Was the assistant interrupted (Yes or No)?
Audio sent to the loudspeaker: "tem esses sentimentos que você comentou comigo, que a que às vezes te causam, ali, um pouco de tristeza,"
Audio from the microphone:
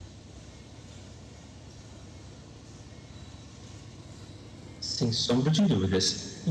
Yes